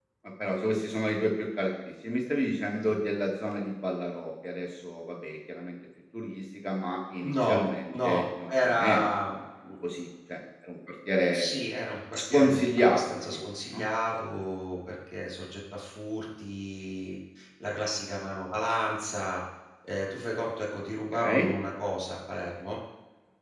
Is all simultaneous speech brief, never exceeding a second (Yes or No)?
No